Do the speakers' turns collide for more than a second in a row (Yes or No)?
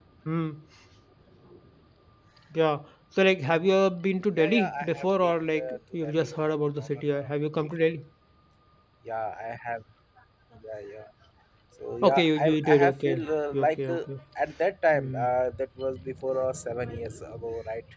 Yes